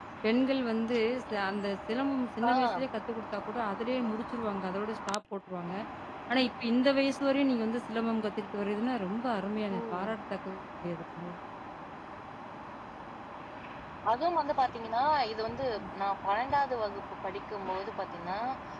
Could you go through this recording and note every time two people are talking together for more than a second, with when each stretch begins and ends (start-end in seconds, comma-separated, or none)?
none